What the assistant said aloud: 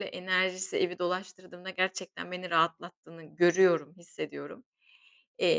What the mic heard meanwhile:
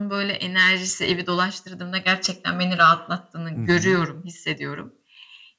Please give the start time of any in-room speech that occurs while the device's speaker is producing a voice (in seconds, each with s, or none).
3.6 s